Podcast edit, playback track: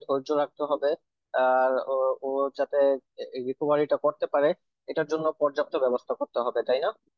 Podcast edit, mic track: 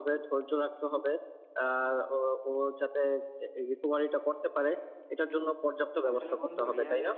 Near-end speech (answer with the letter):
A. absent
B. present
B